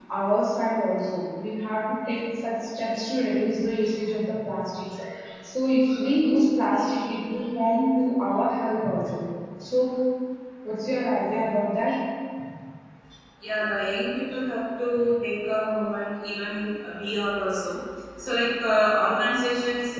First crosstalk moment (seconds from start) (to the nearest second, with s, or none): none